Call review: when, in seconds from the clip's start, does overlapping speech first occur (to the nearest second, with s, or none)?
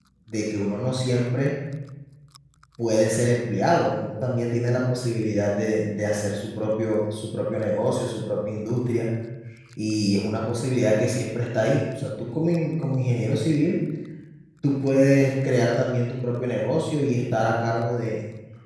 none